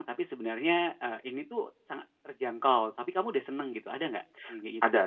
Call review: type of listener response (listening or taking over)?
taking over